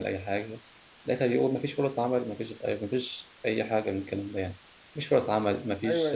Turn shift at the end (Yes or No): No